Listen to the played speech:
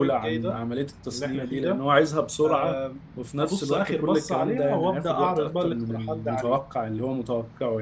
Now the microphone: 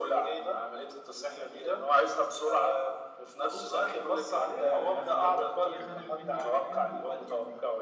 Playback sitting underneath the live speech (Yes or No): No